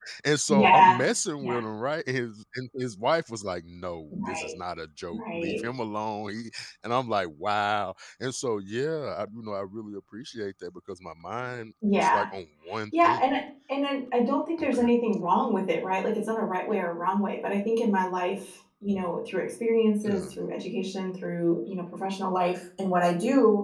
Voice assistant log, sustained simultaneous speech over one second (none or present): none